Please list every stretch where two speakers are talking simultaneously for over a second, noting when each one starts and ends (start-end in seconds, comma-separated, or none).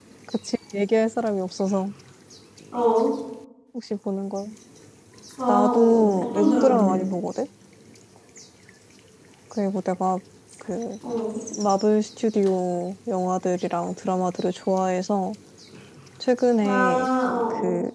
5.5-6.9